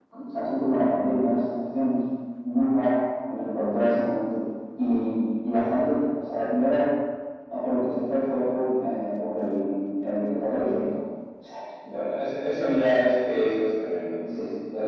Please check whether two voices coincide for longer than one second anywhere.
No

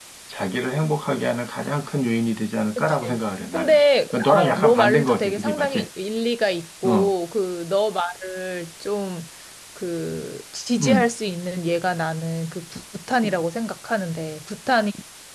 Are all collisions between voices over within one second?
No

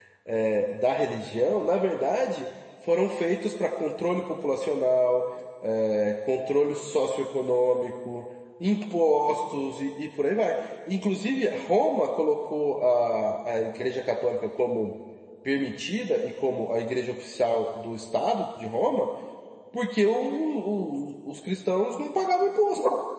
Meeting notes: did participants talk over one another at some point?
No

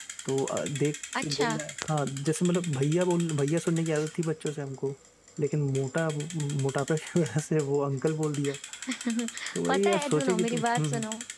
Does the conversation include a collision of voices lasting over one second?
Yes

